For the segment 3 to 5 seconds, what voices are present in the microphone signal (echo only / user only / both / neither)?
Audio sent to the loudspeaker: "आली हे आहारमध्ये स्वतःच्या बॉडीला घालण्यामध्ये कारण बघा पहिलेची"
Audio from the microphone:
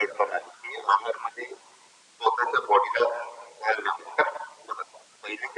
echo only